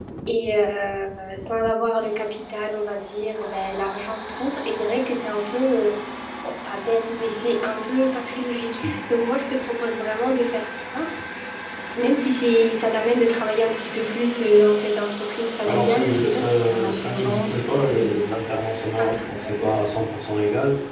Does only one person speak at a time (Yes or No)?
No